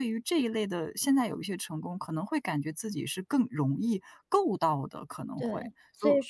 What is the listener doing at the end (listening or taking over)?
taking over